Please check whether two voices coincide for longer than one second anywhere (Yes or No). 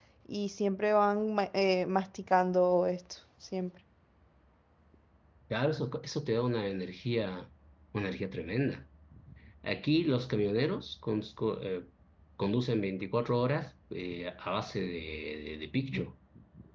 No